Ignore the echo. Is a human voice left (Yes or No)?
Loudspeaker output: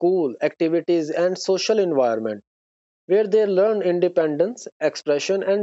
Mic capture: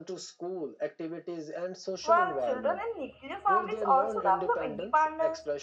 Yes